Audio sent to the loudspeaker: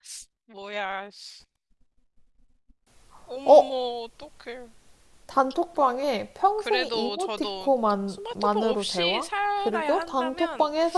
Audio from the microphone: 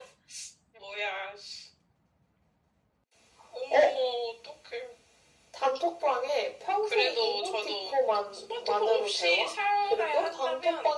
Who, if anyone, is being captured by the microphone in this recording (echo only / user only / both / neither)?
echo only